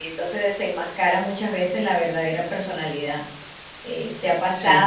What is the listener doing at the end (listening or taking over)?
listening